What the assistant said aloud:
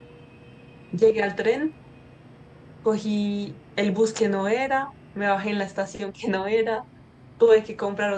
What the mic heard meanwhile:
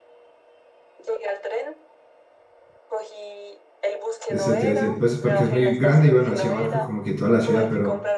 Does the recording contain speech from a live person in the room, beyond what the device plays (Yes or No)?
Yes